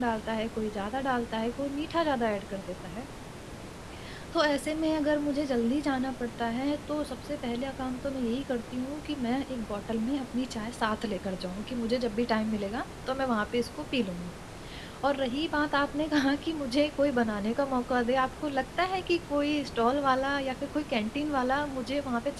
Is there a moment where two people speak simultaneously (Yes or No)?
No